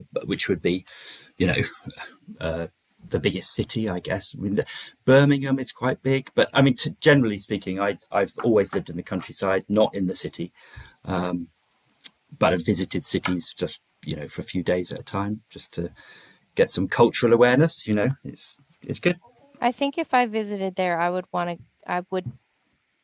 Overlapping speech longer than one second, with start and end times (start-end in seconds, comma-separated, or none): none